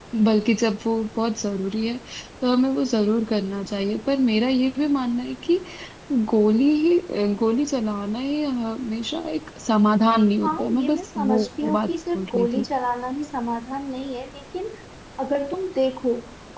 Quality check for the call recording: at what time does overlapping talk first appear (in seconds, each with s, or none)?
10.4 s